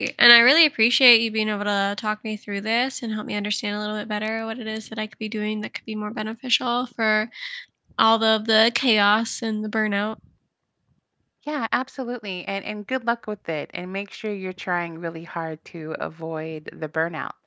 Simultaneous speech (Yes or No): No